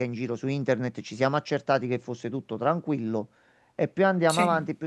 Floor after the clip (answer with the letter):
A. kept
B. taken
A